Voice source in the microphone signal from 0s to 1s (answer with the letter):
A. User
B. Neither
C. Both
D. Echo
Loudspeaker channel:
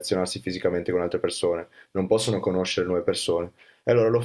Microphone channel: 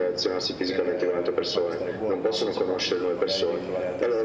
C